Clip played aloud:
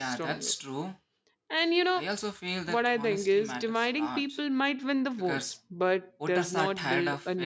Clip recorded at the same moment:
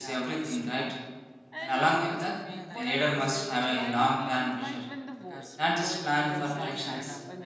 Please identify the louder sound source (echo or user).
user